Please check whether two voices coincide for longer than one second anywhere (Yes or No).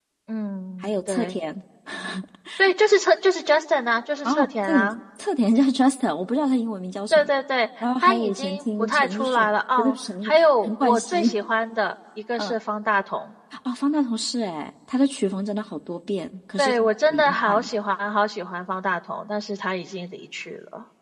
Yes